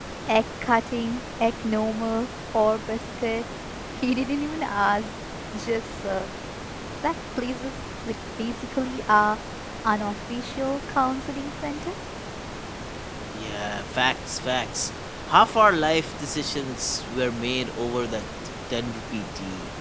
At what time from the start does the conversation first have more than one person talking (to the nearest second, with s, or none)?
none